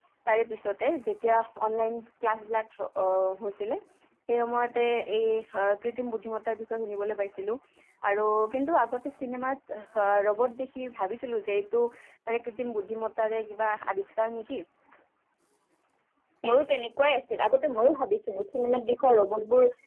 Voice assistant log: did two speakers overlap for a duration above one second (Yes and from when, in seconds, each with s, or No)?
No